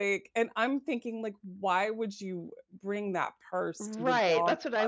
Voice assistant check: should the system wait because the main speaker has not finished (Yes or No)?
No